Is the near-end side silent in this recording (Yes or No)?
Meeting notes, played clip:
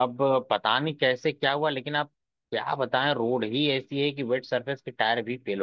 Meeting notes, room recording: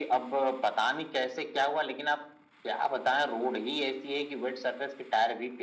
Yes